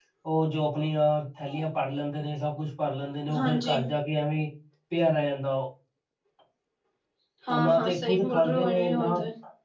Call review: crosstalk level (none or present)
present